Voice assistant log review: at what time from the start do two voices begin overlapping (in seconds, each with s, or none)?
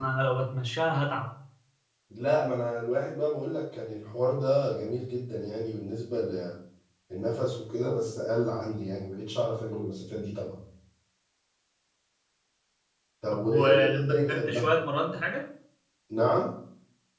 13.3 s